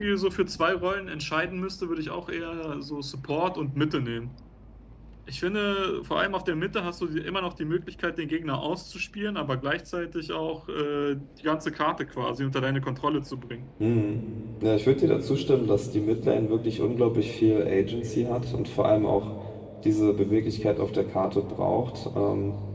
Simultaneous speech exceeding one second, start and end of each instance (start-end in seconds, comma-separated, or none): none